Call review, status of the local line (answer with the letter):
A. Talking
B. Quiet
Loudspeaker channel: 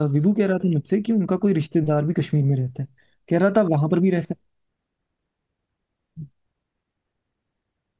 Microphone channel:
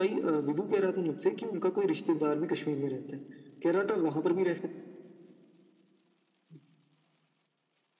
B